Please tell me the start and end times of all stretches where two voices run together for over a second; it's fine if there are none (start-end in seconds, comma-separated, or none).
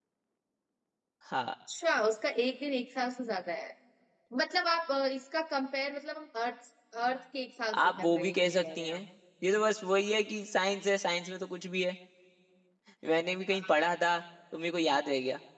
7.8-9.0